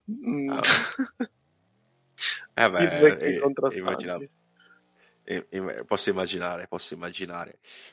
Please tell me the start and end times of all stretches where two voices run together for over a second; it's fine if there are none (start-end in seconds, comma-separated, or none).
2.8-4.2